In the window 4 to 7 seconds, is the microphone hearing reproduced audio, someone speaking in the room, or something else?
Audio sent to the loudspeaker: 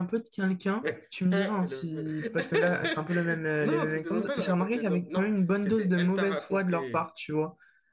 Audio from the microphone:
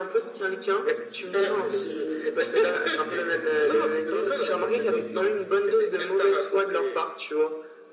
both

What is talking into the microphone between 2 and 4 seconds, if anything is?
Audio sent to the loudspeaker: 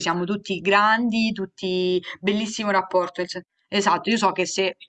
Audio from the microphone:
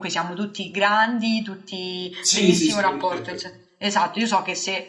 both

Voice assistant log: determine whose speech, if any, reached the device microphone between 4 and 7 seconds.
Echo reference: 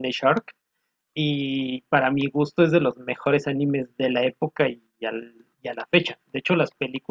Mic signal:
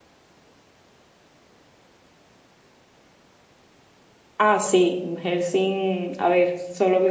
user only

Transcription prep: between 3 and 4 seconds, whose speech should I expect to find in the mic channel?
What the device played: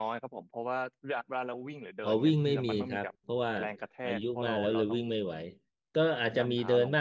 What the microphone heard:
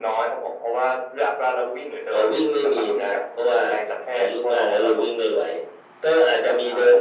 echo only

